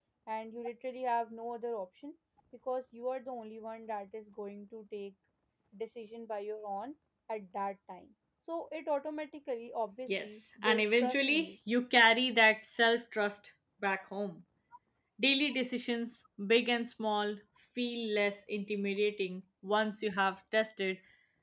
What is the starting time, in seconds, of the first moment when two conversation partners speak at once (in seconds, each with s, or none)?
10.1 s